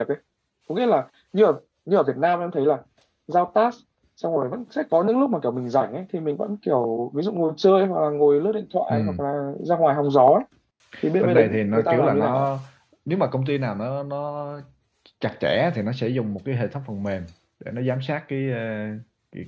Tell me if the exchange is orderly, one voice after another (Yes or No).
No